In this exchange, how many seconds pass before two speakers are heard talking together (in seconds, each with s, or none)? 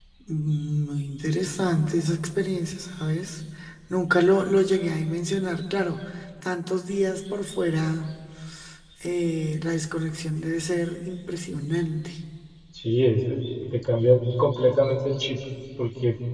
none